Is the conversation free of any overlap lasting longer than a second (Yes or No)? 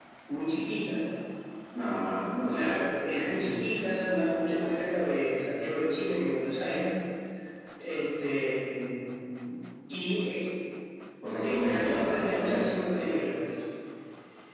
No